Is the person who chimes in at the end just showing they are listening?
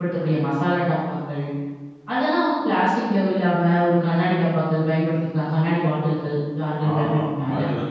No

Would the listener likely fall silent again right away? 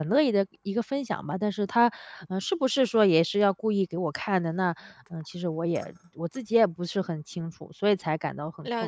No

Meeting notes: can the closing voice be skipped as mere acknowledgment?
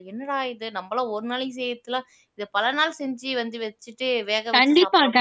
No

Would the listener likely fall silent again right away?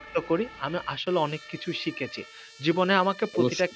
Yes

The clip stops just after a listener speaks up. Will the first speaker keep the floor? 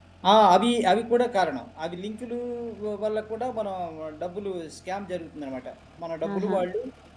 Yes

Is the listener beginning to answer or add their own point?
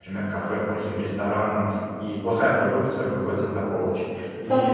Yes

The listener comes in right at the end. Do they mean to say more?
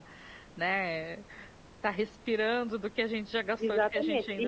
Yes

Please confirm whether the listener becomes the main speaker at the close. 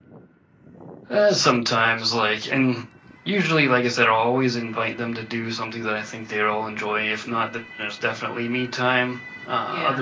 No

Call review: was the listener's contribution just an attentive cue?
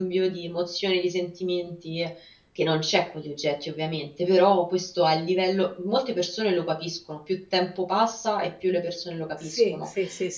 No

